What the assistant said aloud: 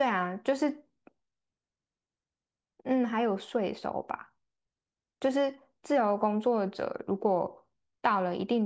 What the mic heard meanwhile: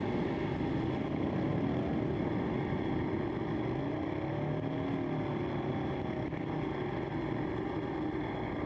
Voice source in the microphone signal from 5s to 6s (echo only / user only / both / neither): neither